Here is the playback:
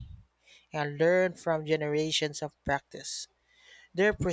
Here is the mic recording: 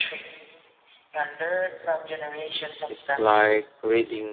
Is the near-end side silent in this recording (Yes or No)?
No